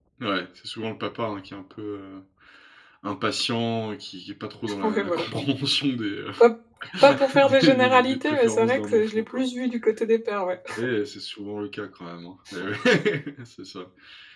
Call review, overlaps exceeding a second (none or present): present